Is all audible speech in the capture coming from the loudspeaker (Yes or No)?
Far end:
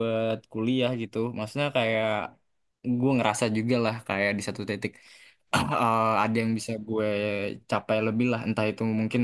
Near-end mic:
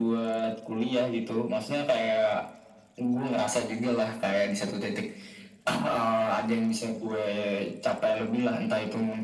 Yes